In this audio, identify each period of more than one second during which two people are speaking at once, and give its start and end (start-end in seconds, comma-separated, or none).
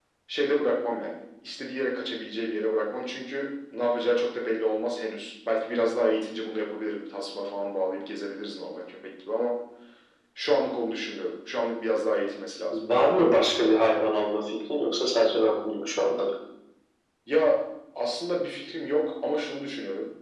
none